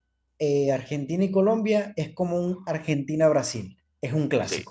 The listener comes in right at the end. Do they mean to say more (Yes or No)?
Yes